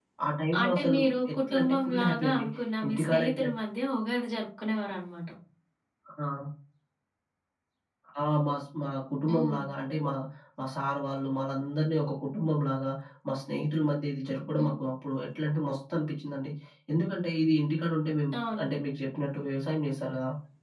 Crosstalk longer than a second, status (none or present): present